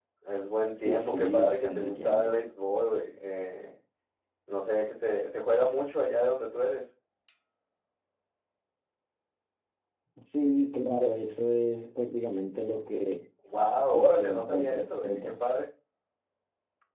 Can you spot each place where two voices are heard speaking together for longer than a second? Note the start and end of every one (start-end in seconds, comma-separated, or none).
0.8-2.4, 13.9-15.2